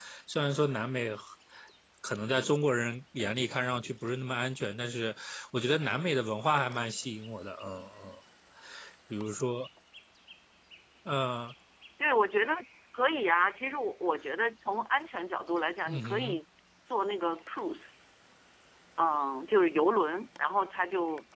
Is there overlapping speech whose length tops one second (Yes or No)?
No